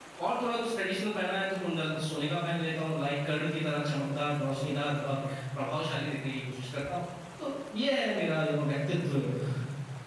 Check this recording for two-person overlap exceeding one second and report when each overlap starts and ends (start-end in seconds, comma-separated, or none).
none